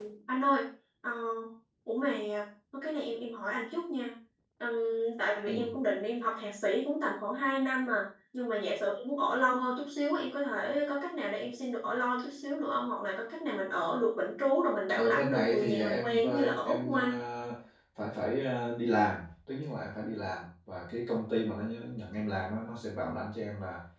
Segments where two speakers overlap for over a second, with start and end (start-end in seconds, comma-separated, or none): 15.0-17.2